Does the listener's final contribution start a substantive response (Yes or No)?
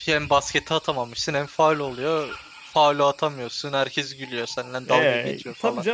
Yes